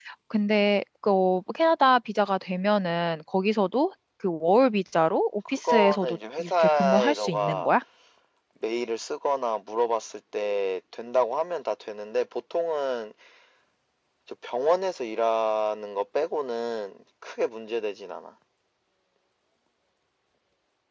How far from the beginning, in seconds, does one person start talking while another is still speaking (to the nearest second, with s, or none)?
6 s